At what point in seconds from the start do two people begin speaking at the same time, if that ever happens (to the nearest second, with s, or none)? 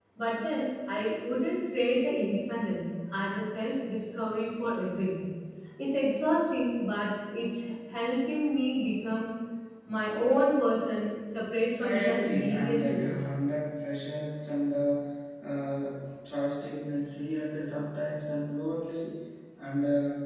12 s